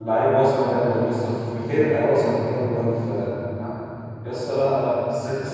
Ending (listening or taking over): listening